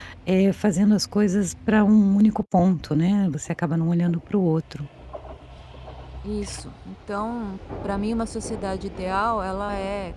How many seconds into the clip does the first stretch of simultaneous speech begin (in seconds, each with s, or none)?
none